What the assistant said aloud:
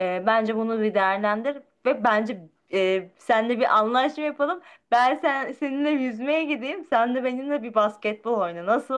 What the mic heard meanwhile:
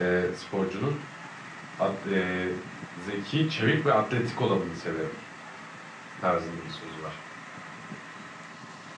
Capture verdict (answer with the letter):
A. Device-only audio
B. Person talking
B